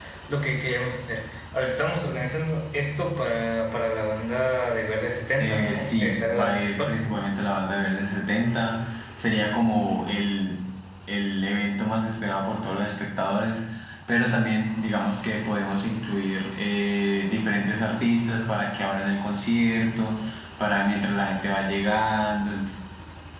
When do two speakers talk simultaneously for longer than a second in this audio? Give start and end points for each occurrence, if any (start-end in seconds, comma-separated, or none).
5.4-7.0